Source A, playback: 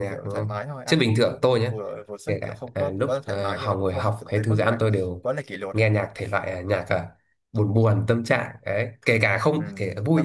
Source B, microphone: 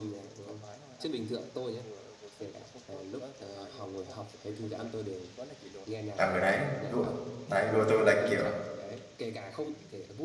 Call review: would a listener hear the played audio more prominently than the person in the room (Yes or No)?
No